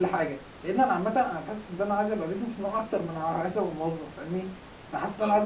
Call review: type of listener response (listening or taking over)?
listening